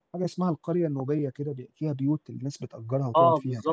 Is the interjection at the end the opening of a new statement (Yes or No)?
Yes